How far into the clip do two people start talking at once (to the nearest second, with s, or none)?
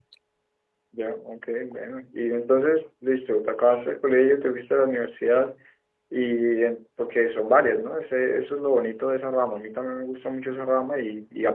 none